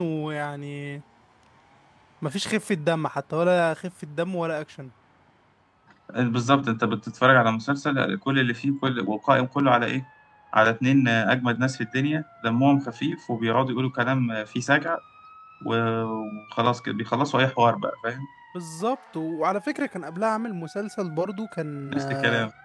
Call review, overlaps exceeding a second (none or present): none